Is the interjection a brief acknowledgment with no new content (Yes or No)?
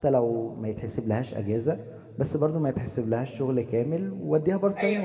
Yes